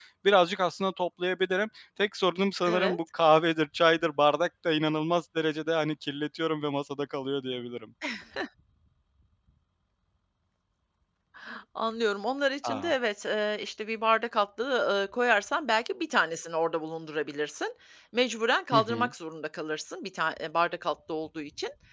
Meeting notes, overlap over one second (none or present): none